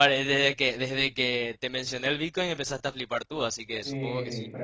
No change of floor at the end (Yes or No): No